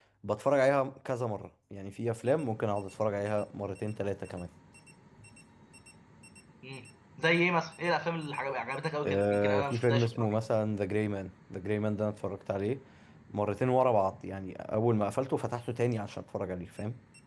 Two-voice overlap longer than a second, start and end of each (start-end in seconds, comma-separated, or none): 9.0-10.3